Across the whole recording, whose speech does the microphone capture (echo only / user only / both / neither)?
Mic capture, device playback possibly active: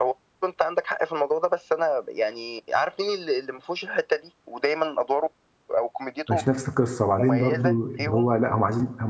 both